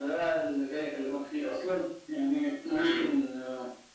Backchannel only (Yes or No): Yes